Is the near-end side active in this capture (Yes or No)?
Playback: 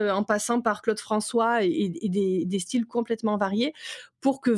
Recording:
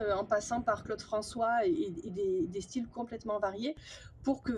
No